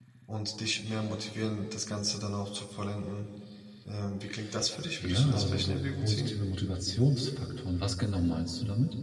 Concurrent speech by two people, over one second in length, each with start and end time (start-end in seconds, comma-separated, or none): 5.0-6.3